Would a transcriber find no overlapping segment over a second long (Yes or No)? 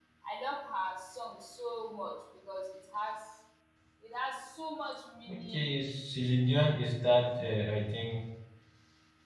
Yes